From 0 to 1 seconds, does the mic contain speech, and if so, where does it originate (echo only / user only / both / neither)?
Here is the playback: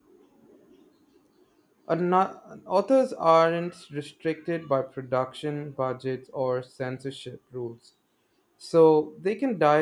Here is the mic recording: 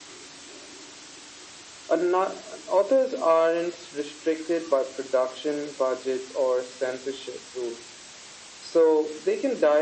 neither